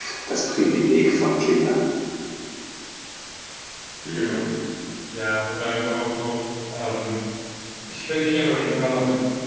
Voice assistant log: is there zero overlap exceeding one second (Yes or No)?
Yes